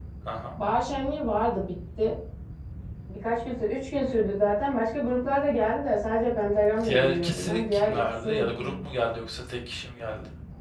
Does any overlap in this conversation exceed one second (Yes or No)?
Yes